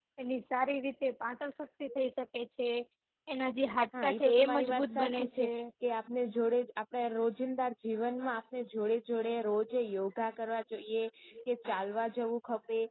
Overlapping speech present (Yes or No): Yes